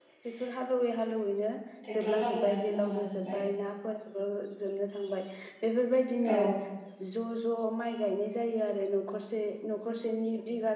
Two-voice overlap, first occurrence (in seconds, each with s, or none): 2.0 s